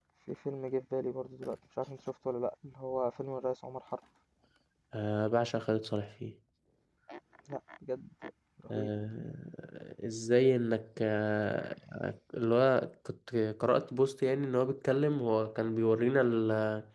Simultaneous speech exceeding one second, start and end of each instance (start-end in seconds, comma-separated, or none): none